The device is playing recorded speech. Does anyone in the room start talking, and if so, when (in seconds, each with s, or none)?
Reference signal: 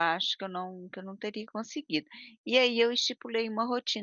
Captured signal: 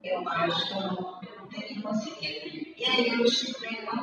none